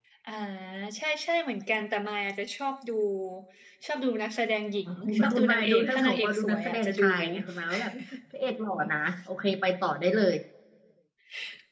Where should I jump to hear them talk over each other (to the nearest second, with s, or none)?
5 s